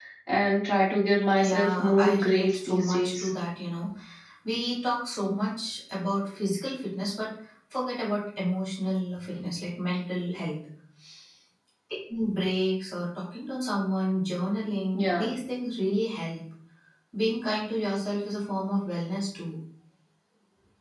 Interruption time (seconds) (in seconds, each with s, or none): 1.4 s